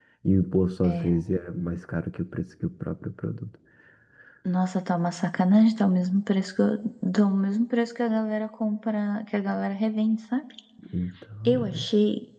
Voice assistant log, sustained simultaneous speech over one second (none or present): none